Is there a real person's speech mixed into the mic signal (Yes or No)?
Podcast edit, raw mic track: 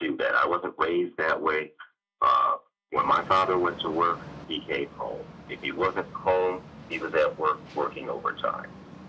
No